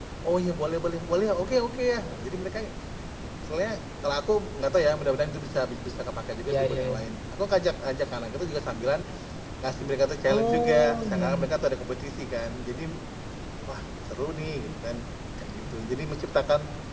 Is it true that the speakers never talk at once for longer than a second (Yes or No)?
No